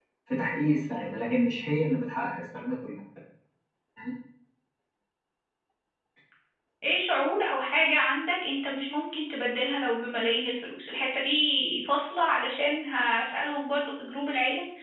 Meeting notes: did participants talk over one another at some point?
No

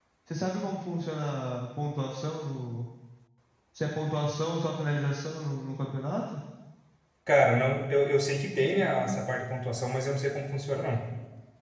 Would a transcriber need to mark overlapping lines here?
No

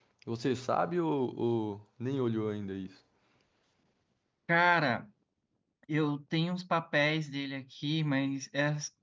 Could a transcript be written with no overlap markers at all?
Yes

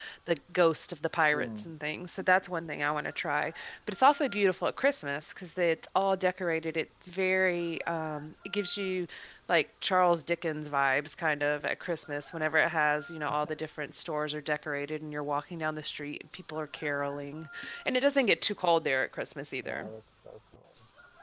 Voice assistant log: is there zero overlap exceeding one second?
Yes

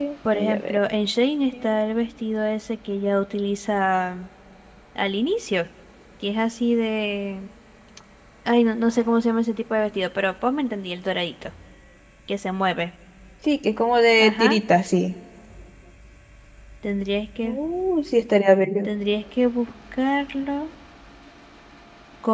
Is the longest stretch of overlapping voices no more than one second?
Yes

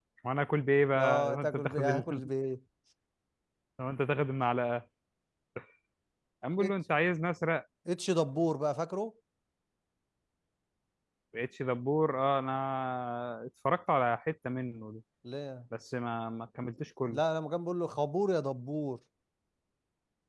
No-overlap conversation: No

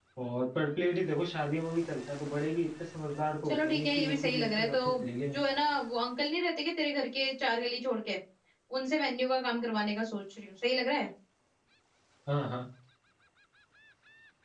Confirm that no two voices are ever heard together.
No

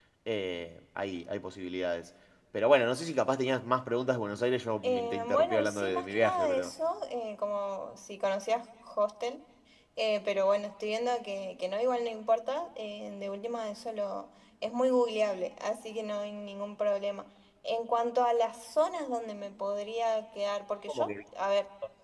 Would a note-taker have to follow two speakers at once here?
Yes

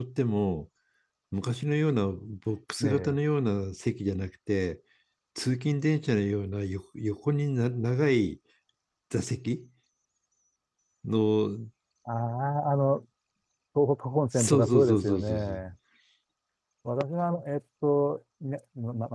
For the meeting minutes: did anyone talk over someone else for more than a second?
Yes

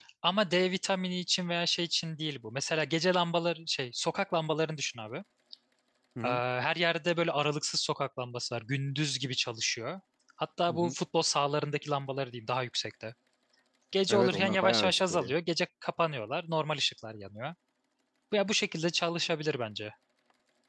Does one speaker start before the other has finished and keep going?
Yes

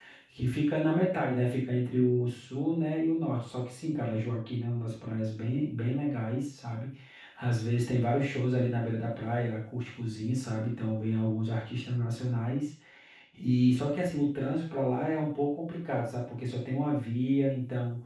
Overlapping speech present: No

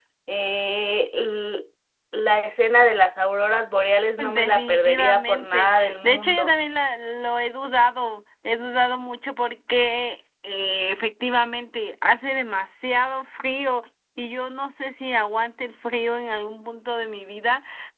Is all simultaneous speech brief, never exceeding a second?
No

